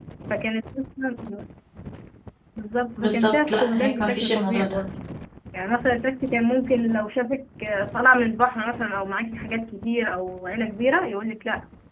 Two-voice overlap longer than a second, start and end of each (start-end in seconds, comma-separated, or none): 3.0-4.8